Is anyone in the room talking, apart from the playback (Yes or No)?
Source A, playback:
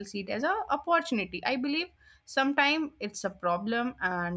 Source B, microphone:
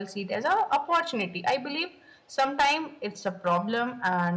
No